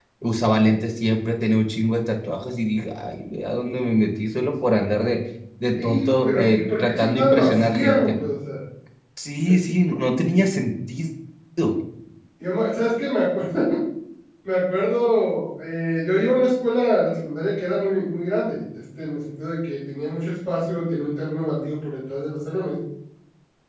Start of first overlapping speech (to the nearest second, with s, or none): 6 s